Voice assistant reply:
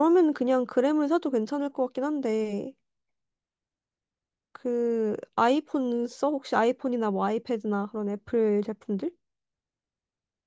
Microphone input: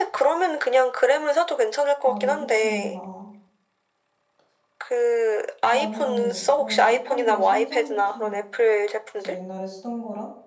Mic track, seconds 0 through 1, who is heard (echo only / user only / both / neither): echo only